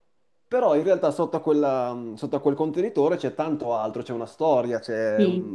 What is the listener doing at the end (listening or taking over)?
listening